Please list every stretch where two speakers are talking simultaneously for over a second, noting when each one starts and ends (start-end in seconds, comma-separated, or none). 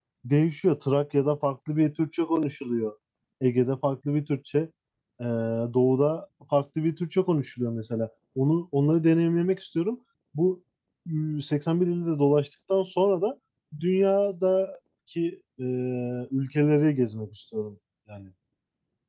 none